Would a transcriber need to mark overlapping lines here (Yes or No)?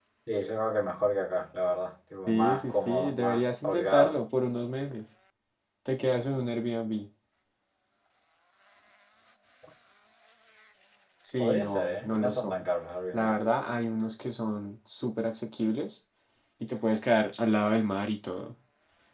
Yes